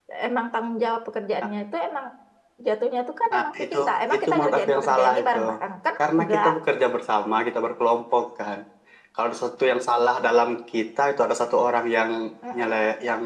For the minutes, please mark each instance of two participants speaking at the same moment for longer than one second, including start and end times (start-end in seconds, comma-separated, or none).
4.2-5.4